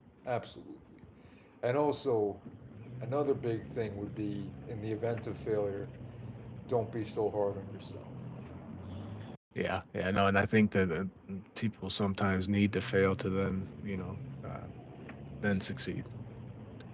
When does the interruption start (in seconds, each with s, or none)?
none